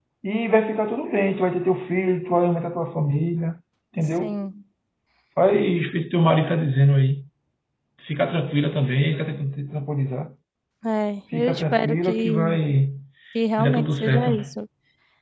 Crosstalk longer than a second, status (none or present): present